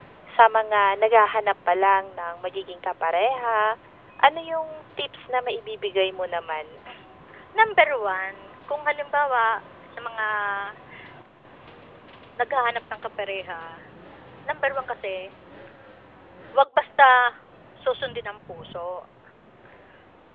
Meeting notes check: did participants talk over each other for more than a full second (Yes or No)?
No